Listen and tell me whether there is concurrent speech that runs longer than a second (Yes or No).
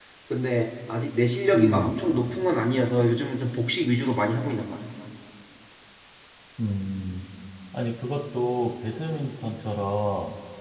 No